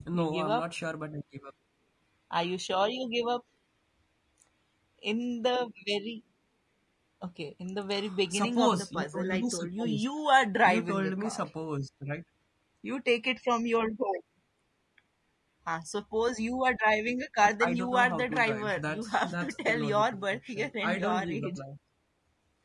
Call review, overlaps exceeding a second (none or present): present